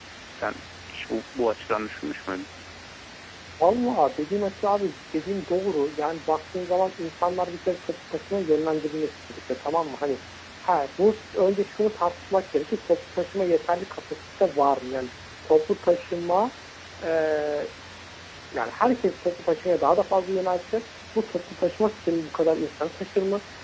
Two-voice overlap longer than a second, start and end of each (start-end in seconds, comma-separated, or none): none